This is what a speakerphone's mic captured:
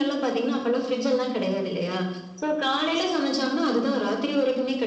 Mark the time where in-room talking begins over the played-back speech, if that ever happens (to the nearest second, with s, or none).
none